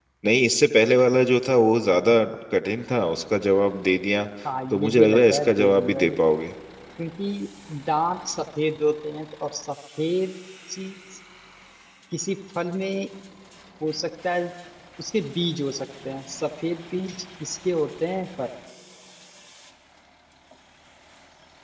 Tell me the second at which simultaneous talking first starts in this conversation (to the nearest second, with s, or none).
5 s